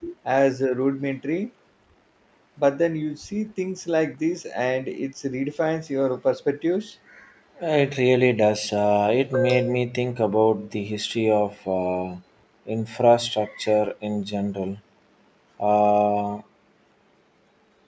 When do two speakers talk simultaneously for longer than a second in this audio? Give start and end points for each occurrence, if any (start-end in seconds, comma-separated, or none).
none